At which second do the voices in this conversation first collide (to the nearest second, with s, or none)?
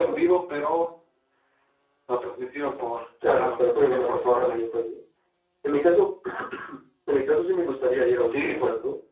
3 s